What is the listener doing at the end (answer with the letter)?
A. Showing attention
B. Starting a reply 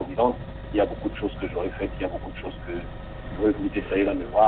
A